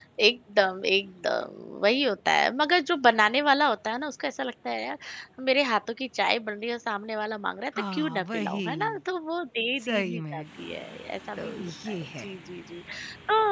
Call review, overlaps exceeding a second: present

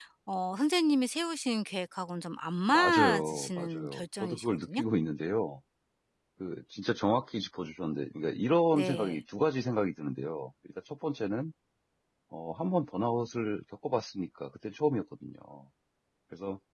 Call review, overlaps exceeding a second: present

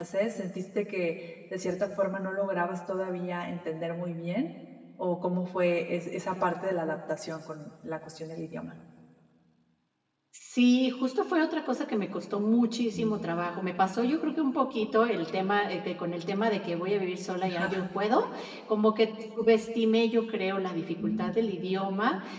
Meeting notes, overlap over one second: none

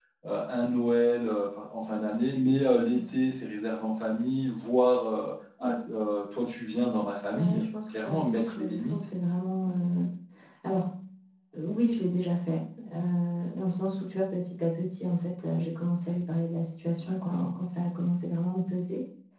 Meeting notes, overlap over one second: present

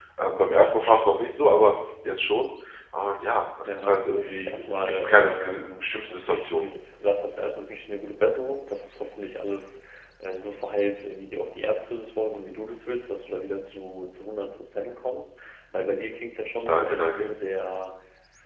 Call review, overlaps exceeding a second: present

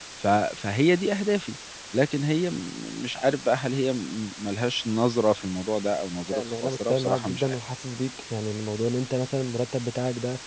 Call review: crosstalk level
present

